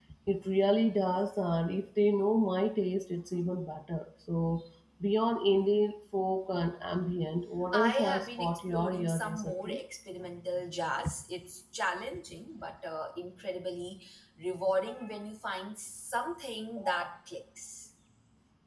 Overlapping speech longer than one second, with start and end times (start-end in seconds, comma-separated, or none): 7.7-9.8